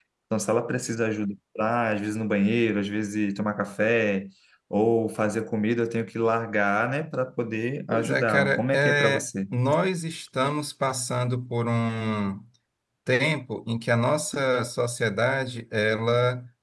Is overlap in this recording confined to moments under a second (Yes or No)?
No